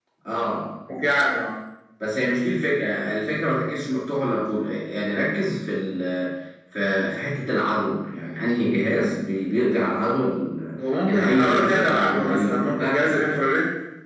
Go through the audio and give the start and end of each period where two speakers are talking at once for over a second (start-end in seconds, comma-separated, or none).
11.0-13.5